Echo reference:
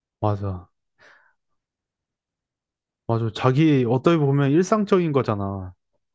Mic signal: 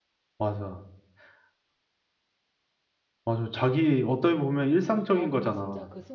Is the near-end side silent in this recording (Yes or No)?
No